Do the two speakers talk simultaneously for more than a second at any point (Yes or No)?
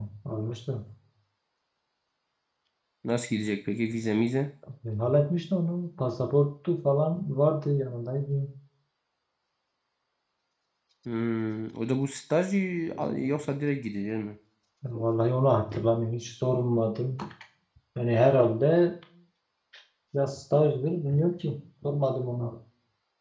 No